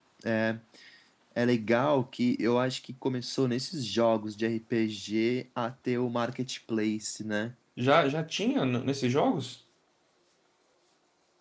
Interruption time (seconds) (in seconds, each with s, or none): none